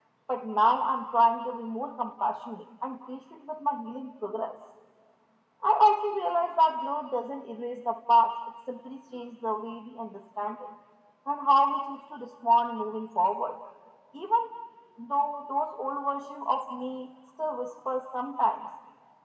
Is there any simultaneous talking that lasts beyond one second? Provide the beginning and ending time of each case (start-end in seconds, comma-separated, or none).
none